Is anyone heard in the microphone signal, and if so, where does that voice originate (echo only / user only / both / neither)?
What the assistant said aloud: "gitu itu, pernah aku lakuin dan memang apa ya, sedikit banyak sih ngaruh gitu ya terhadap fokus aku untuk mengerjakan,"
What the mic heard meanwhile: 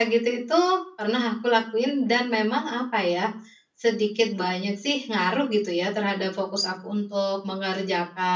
echo only